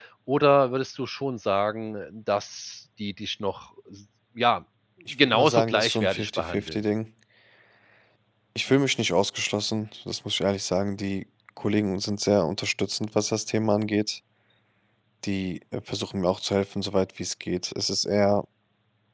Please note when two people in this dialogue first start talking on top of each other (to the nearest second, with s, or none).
5 s